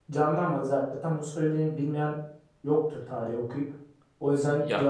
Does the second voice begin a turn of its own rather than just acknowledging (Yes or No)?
Yes